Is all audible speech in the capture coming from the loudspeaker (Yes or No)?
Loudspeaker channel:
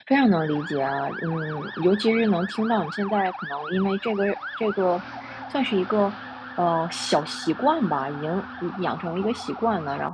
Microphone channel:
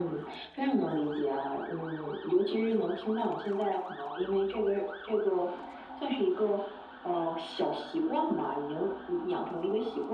Yes